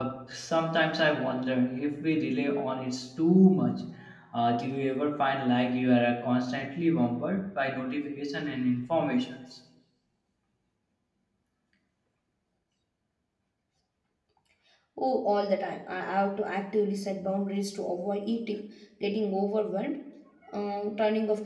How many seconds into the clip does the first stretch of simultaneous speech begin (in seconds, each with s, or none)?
none